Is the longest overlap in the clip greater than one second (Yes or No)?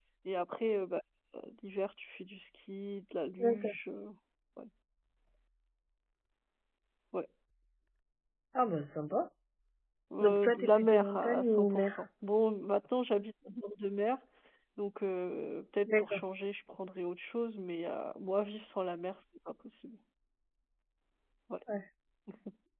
Yes